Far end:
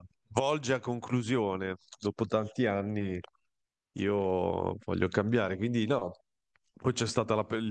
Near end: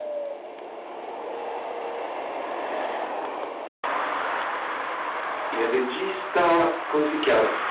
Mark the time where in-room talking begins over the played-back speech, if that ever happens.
5.5 s

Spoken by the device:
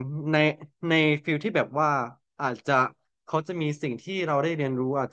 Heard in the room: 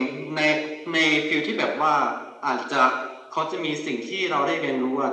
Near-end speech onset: none

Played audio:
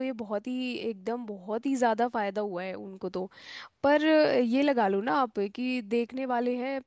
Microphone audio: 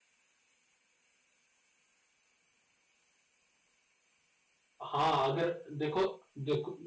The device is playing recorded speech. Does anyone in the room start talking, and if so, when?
4.8 s

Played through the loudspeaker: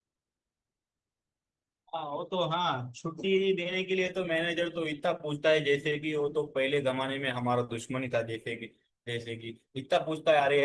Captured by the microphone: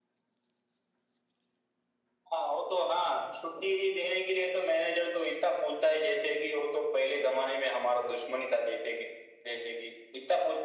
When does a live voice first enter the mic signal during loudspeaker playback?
none

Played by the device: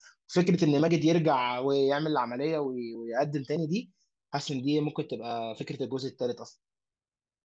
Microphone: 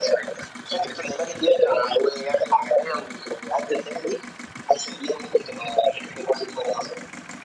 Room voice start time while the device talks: none

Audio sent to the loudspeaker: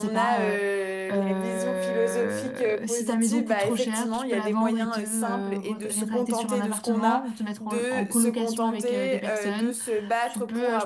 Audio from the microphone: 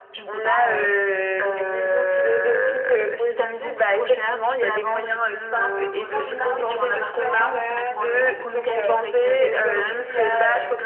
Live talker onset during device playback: 5.8 s

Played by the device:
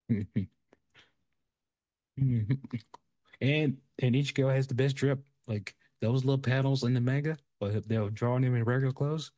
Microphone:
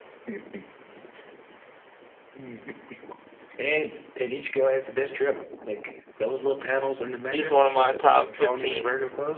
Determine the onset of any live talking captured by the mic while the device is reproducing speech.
7.3 s

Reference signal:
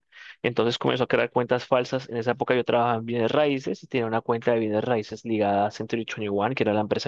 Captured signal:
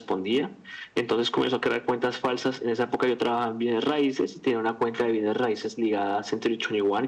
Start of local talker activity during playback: none

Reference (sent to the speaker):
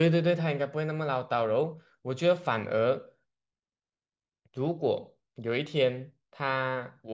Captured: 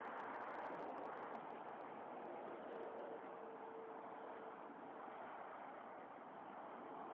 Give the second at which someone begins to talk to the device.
none

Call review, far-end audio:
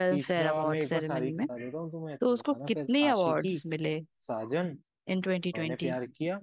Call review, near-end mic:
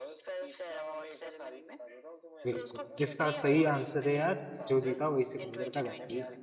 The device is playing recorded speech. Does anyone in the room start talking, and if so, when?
2.5 s

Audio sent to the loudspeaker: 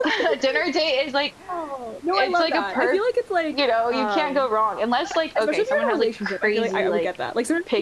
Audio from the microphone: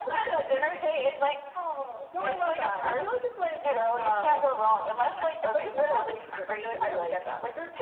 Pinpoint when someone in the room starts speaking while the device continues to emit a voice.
none

